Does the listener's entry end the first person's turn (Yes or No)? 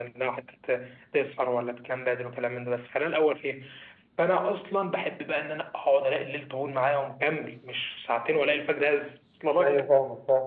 Yes